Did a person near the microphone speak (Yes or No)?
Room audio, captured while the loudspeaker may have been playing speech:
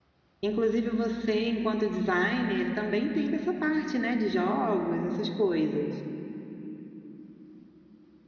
Yes